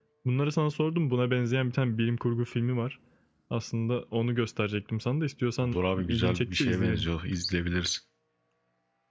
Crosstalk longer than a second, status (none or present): present